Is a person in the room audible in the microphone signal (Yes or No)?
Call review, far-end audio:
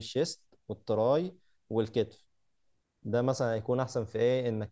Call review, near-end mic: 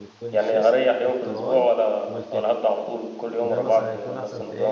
Yes